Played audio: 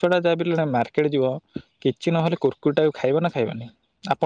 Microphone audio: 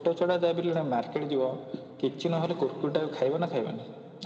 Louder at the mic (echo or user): echo